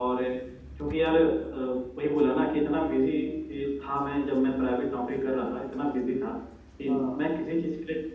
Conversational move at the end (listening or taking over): listening